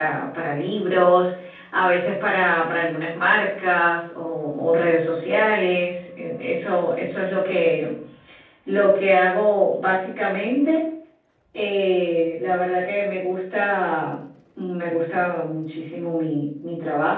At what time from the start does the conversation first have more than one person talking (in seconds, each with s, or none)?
none